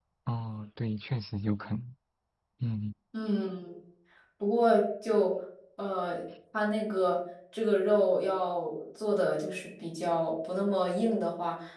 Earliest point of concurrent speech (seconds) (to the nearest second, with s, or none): none